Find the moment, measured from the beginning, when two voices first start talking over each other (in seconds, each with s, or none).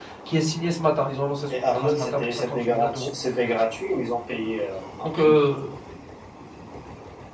1.7 s